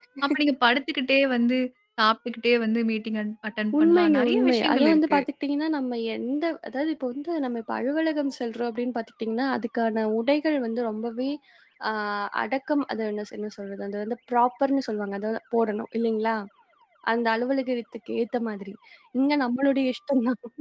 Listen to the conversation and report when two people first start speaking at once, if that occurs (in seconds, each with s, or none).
3.7 s